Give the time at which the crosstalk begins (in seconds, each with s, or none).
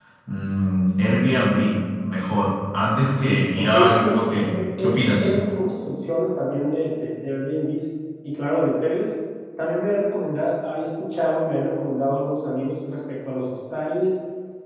3.6 s